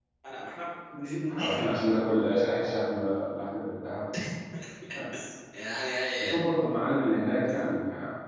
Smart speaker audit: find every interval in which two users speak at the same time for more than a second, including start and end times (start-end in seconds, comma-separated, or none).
none